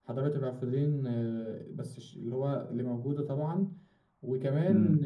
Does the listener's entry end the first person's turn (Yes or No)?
No